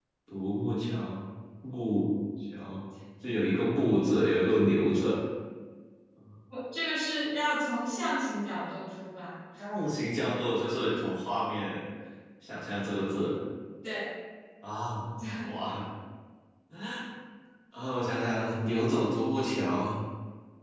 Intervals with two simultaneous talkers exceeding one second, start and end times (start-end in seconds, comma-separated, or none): none